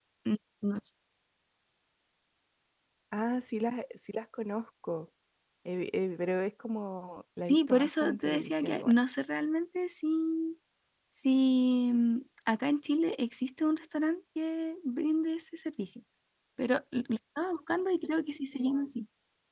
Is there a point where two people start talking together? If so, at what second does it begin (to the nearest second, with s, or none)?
7 s